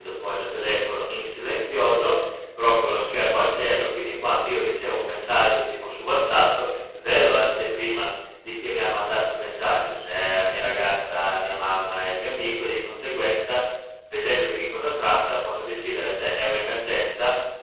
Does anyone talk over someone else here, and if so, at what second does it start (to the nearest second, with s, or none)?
none